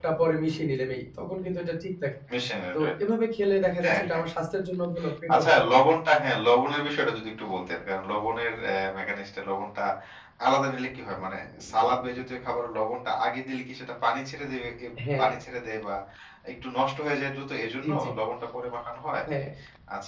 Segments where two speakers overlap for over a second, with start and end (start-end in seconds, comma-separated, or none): none